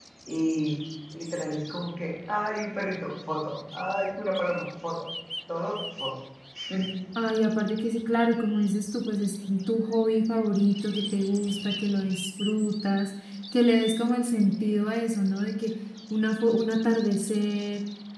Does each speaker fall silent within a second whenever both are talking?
Yes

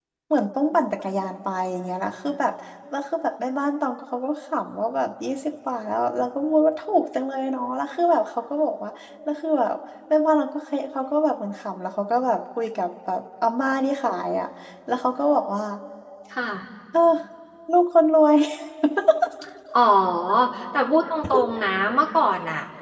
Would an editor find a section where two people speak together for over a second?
No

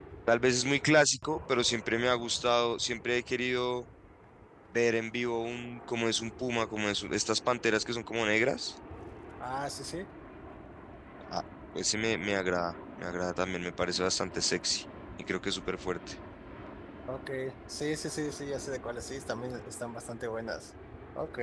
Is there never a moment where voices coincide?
Yes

